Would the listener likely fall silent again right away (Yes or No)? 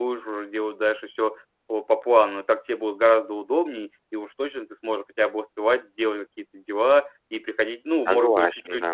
Yes